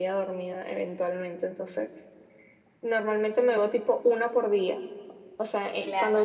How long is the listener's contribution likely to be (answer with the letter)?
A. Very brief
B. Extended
A